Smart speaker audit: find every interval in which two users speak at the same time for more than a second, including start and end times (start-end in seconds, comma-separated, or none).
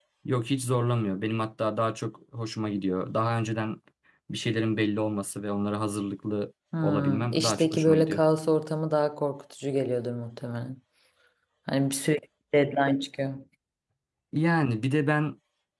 6.8-8.2